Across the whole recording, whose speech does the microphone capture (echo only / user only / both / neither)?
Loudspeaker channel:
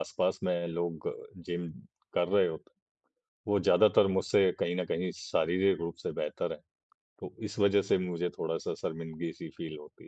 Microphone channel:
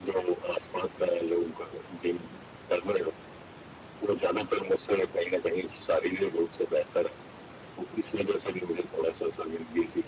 echo only